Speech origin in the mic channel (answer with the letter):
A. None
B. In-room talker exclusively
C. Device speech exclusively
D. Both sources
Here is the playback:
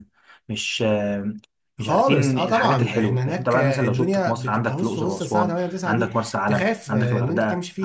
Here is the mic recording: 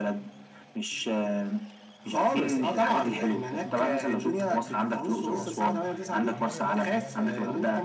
D